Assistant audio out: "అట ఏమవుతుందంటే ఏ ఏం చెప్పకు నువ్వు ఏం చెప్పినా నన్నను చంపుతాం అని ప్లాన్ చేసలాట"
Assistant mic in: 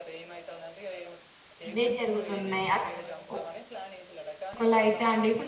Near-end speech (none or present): present